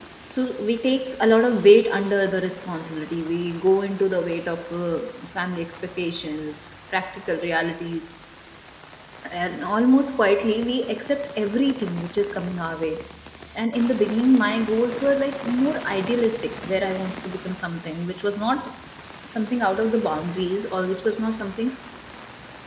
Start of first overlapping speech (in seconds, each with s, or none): none